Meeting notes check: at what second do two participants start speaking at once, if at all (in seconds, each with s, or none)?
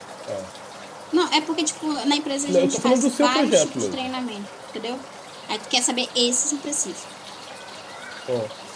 2.5 s